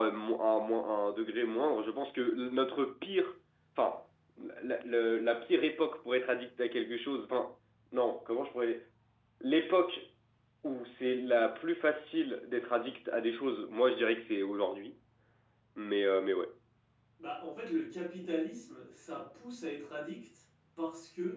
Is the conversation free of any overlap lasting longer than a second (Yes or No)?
Yes